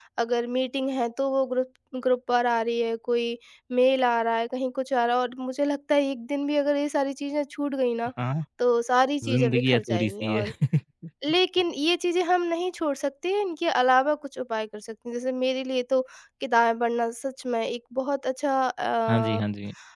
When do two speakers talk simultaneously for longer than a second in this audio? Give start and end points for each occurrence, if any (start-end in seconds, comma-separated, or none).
9.2-10.5